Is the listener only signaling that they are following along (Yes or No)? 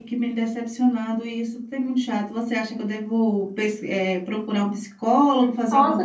No